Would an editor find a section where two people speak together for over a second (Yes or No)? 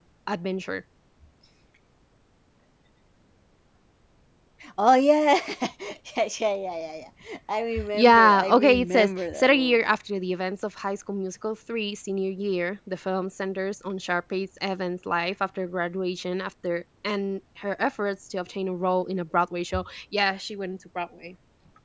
Yes